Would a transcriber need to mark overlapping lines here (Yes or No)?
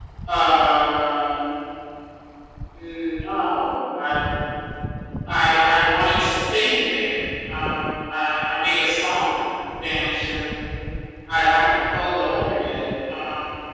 No